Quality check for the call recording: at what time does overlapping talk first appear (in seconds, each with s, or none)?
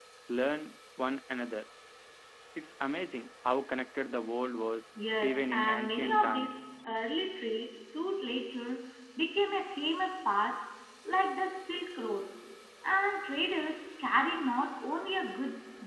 5.2 s